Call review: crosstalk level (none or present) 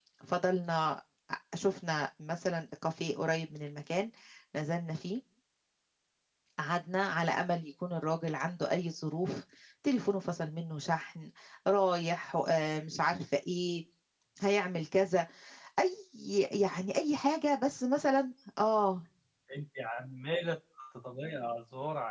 none